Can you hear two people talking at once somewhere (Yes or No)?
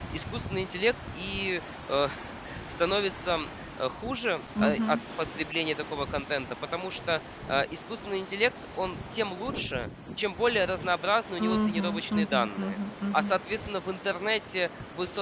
Yes